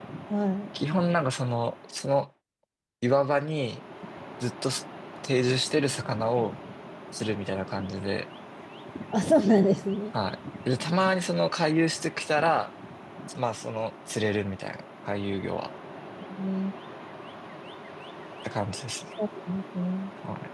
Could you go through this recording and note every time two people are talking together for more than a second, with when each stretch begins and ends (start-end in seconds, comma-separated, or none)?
none